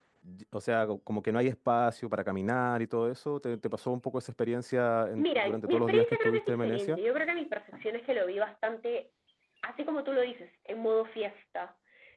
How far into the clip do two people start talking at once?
5.2 s

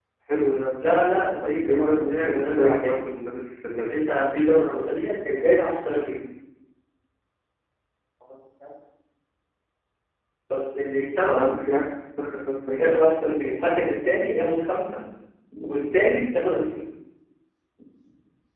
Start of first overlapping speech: 1.4 s

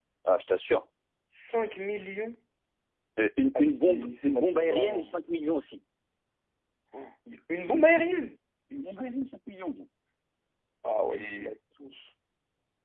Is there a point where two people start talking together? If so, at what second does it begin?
3.5 s

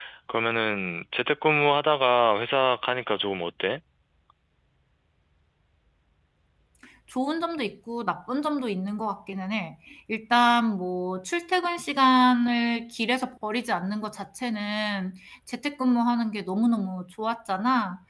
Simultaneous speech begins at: none

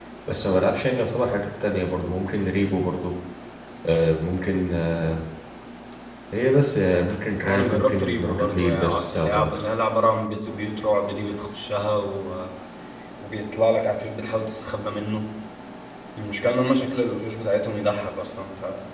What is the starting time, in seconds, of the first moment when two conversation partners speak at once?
7.4 s

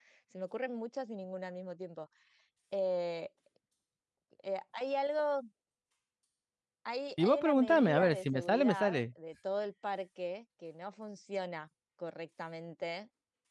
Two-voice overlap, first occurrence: 7.2 s

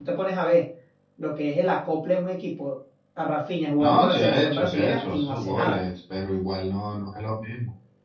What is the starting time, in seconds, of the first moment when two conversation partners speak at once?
3.8 s

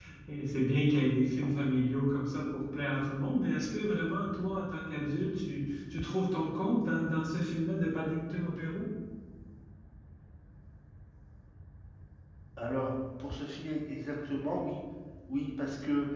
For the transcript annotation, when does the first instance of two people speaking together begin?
none

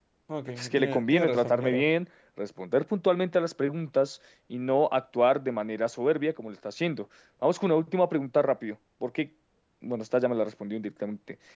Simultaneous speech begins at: 0.6 s

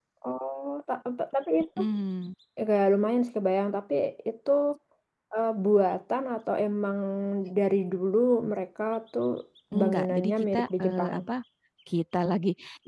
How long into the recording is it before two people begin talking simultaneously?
9.8 s

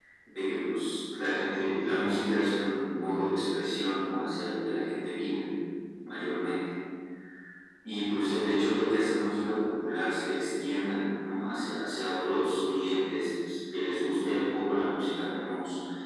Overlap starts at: none

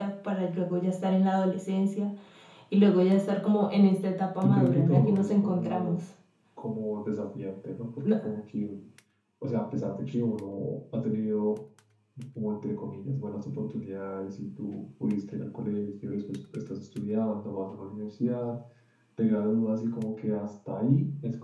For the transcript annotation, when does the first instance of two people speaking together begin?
4.4 s

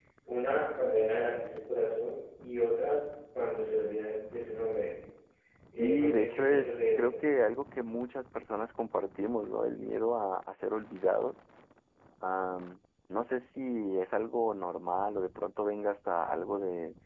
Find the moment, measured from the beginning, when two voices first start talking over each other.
5.8 s

